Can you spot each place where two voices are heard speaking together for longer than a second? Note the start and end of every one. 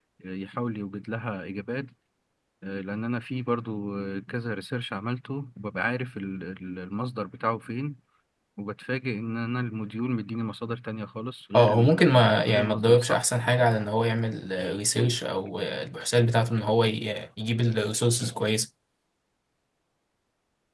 11.5-13.2

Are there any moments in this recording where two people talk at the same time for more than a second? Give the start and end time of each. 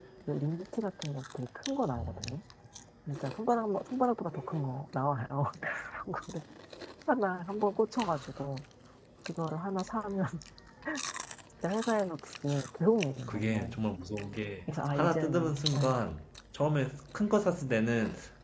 14.7-15.9

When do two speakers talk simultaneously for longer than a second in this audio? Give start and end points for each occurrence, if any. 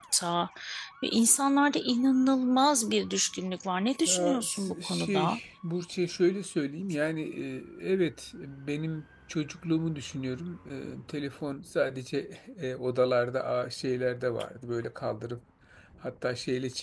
4.0-5.4

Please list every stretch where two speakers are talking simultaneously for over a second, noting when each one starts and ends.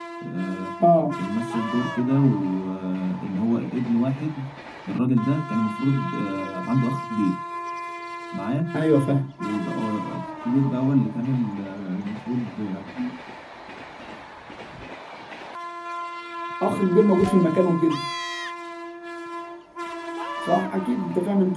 none

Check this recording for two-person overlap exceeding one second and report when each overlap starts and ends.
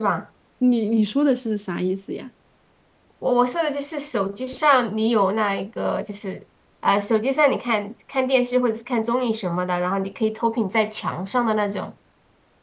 none

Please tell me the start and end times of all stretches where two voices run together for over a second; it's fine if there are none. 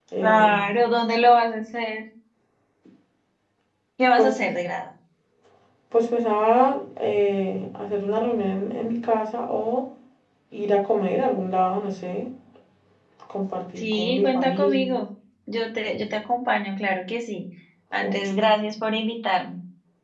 13.8-15.0

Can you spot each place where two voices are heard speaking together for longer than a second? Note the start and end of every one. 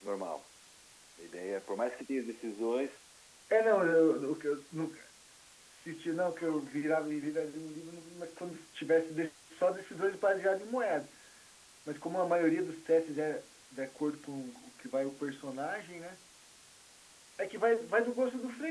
none

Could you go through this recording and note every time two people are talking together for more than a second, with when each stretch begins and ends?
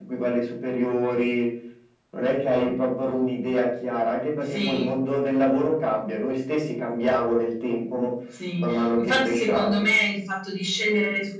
8.6-9.8

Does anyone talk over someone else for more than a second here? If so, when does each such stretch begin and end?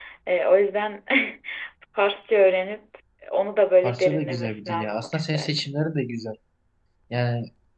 3.8-5.7

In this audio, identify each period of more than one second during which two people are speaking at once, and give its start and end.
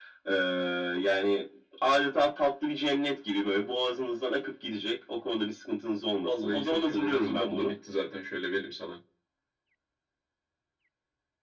6.2-7.8

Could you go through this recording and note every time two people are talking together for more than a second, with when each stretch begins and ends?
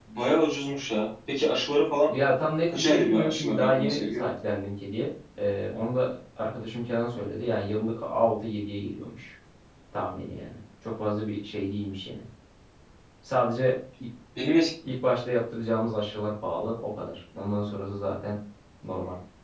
2.7-4.2

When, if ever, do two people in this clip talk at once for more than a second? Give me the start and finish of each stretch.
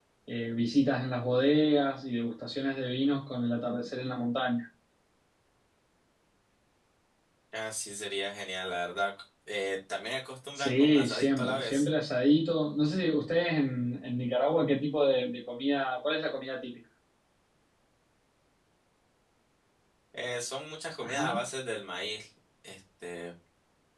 10.6-11.9

